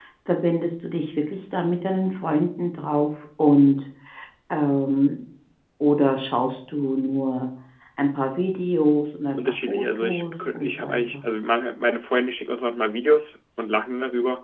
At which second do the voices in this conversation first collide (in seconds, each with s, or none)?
9.3 s